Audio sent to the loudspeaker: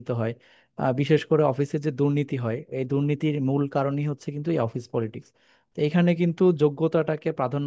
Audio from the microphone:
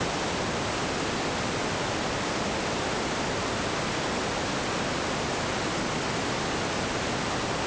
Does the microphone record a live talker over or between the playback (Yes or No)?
No